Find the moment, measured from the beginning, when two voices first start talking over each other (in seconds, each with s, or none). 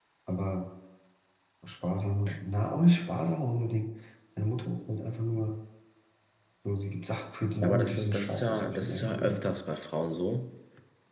7.6 s